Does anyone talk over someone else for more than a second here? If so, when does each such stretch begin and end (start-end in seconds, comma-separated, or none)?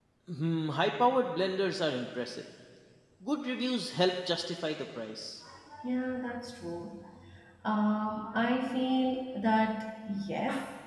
none